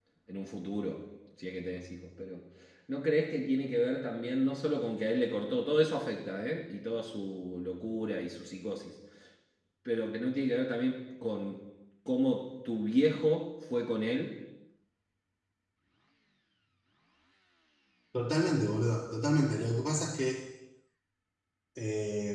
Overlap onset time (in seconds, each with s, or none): none